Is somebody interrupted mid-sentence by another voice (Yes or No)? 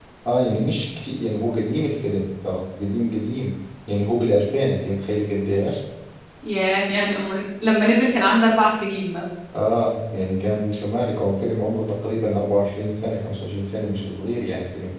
No